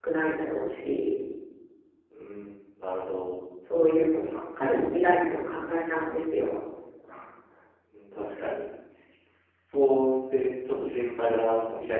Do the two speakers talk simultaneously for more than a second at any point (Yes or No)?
No